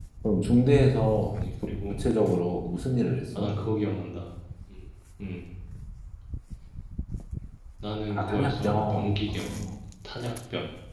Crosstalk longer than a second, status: present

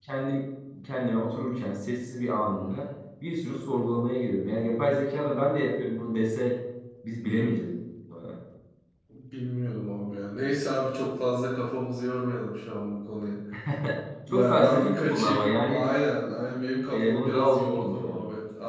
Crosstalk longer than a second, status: present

